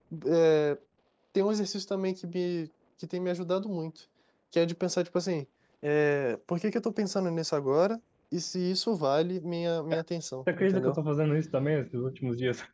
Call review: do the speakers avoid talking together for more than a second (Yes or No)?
Yes